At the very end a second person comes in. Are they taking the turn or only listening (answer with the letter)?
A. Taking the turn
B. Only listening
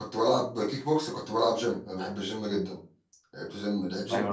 A